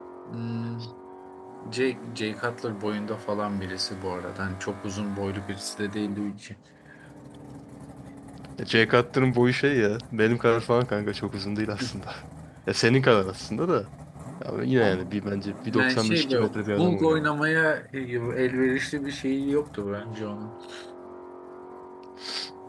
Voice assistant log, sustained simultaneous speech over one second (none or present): present